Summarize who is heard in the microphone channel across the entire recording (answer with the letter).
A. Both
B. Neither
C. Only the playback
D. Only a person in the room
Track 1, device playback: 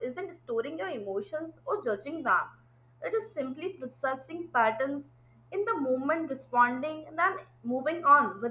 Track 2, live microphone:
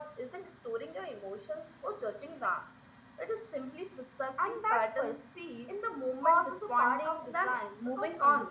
A